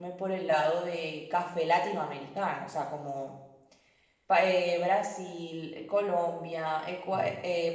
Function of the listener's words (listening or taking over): listening